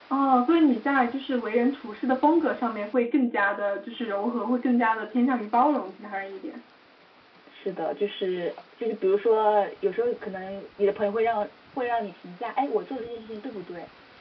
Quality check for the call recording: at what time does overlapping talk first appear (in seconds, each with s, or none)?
none